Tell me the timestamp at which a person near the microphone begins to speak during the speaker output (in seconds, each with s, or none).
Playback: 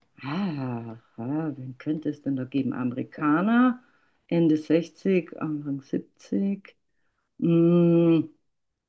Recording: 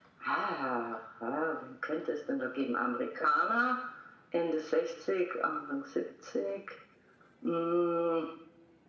none